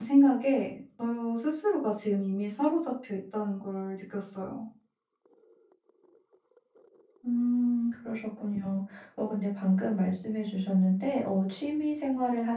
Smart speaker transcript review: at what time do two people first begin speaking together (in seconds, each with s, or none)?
none